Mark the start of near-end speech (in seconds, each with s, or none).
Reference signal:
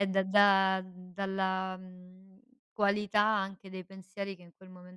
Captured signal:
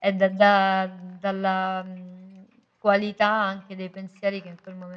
none